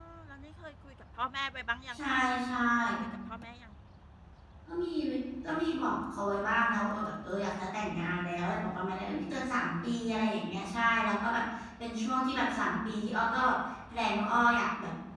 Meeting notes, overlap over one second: none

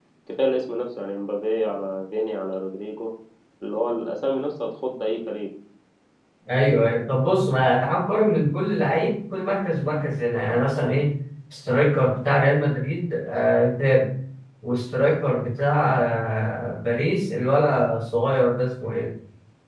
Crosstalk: none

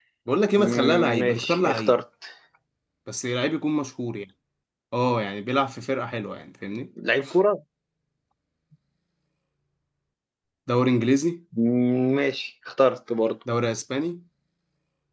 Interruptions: present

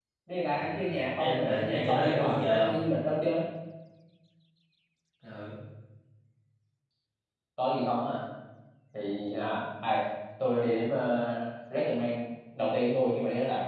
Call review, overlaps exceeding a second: present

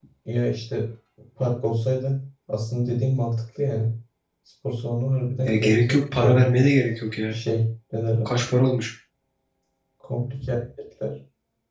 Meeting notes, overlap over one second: present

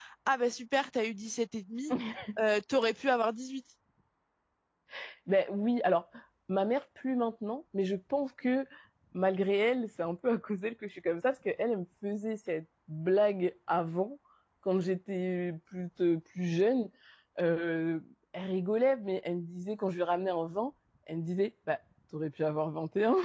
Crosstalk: none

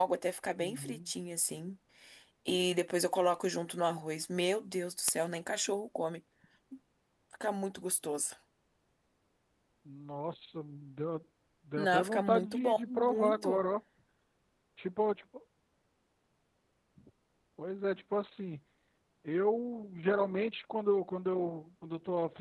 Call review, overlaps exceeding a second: present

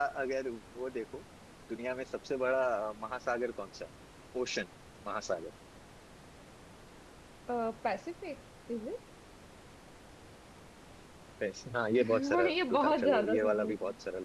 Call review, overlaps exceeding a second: present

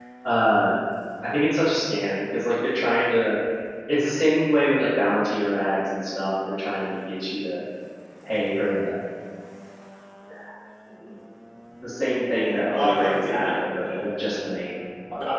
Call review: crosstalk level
present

